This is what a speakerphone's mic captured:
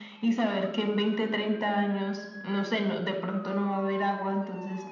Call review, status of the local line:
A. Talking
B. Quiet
B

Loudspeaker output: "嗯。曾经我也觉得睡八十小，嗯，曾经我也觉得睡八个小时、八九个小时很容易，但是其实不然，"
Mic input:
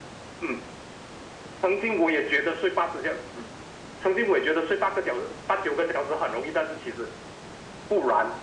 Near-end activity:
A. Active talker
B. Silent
B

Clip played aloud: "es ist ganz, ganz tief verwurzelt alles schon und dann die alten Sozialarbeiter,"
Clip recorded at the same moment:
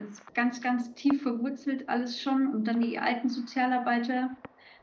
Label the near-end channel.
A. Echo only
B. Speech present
A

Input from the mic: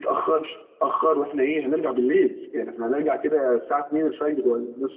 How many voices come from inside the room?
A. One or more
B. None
A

